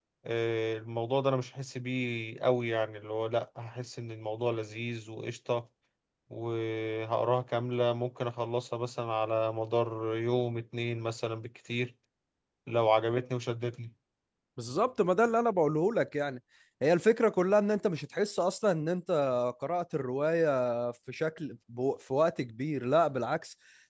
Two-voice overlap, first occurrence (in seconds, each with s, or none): none